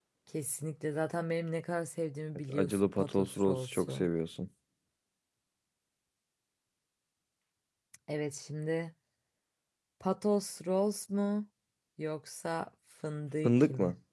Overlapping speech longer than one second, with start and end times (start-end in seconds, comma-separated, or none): 2.5-4.1